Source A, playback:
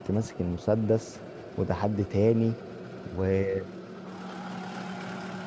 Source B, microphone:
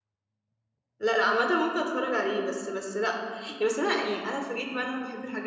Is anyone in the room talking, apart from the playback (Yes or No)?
Yes